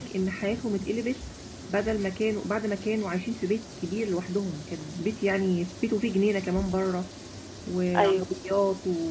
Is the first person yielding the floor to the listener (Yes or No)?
No